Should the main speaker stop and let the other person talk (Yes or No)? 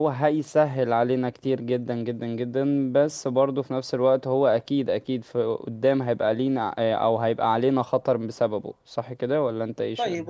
Yes